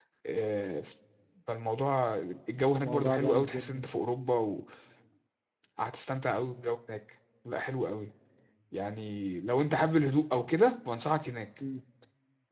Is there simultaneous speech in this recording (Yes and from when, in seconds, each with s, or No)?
Yes, from 2.5 s